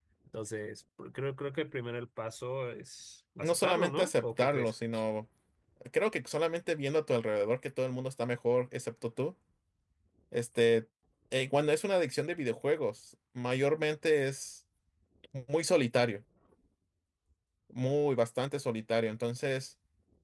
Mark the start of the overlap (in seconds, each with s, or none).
3.4 s